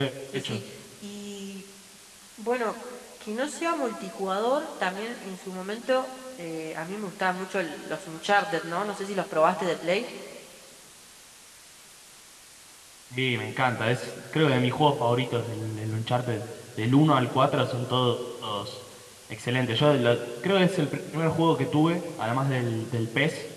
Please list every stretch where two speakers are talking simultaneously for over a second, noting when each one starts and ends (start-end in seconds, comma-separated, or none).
none